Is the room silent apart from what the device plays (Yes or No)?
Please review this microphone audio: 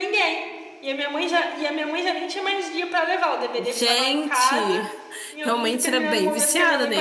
No